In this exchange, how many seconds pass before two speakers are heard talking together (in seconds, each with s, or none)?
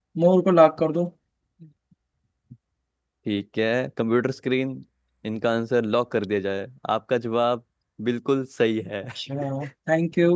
none